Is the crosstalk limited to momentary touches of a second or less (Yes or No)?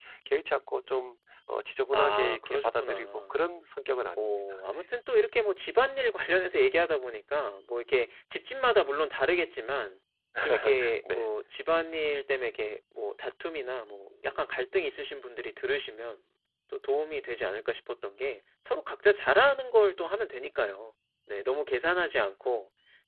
No